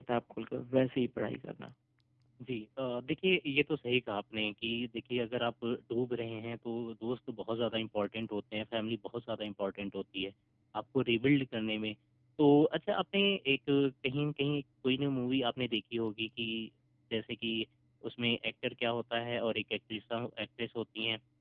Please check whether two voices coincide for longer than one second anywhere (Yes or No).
No